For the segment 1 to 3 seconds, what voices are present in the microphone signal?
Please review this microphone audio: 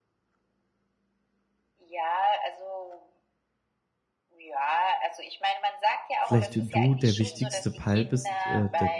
echo only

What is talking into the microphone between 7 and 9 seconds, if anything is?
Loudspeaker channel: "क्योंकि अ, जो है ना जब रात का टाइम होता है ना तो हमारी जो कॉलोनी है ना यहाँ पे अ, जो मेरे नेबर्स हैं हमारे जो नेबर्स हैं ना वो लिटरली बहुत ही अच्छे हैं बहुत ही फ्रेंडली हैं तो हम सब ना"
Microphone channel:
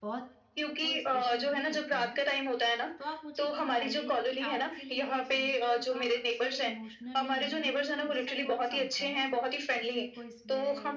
both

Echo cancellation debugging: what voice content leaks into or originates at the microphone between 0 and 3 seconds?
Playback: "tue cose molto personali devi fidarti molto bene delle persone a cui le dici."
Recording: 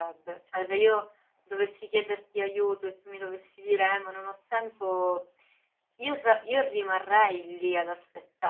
user only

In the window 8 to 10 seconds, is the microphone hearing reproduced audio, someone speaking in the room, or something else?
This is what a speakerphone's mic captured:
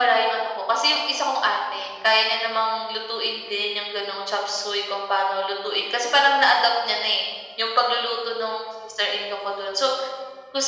echo only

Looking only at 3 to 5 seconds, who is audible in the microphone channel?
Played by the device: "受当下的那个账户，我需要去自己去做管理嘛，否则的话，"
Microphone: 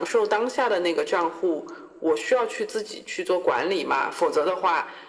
echo only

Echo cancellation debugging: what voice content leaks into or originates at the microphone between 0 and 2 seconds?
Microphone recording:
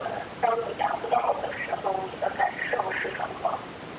echo only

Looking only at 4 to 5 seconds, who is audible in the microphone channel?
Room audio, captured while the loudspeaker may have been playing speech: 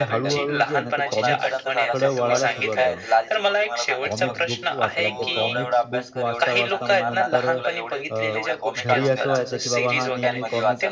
both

